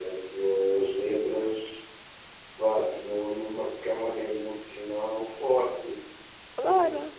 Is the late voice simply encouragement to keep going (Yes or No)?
No